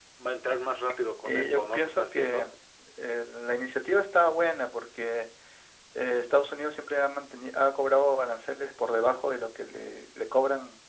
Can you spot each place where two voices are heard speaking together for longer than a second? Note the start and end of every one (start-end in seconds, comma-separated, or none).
1.2-2.5